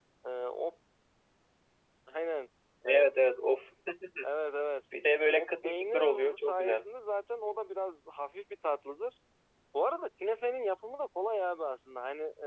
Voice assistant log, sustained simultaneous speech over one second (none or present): present